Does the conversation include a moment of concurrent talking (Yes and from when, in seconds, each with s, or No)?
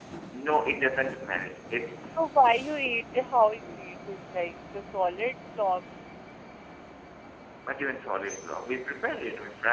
No